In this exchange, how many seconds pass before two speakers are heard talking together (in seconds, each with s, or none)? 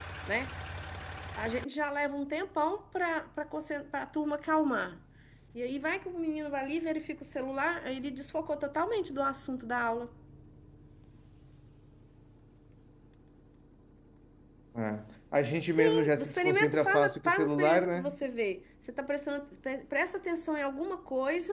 15.7 s